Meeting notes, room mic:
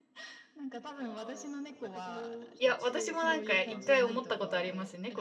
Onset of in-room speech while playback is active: 2.6 s

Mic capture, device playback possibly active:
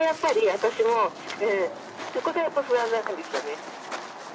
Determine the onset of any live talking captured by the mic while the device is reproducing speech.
none

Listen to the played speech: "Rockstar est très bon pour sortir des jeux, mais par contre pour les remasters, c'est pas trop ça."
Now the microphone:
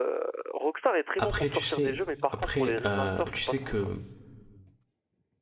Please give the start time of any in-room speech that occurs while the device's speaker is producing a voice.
1.2 s

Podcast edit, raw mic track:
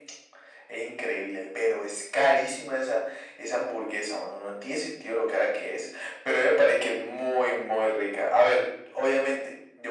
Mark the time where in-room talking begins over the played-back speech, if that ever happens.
none

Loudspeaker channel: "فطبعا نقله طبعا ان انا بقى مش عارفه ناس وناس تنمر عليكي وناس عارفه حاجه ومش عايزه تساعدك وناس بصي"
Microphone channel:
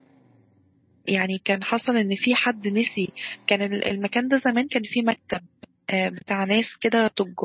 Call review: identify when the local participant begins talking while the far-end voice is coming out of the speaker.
1.0 s

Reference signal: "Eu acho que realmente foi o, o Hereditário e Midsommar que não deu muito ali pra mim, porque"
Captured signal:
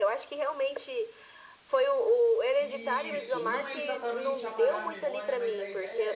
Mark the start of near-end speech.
2.6 s

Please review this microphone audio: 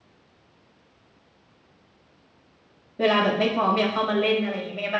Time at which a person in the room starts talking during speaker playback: 3.0 s

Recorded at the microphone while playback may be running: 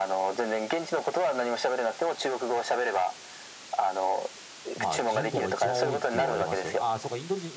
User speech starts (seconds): 4.8 s

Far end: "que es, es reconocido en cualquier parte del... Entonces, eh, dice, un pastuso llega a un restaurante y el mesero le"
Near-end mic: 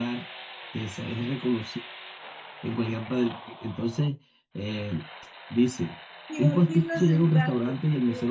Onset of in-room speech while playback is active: 6.3 s

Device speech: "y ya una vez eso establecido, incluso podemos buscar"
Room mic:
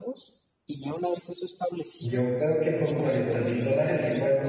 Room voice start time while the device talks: 2.0 s

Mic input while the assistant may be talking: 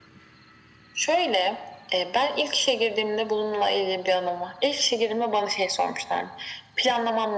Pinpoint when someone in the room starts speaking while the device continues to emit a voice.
none

